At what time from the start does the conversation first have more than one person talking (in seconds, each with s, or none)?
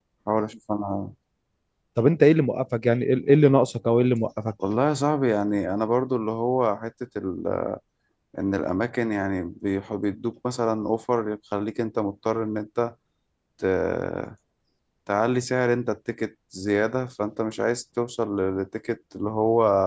none